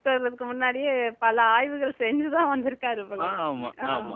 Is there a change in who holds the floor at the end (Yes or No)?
Yes